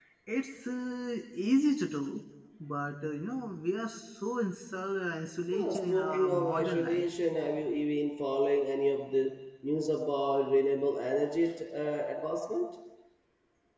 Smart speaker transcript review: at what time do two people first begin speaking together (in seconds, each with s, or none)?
5.5 s